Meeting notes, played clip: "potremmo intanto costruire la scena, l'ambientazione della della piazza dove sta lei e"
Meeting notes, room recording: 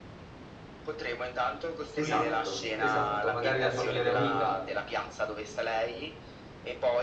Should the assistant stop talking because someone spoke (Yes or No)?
Yes